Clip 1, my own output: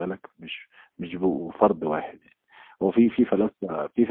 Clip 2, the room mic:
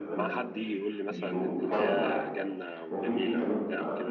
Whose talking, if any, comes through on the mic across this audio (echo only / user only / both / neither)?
both